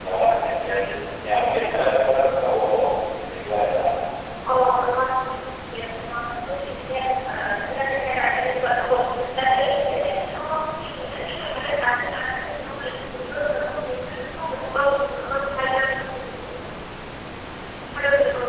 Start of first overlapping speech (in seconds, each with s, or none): none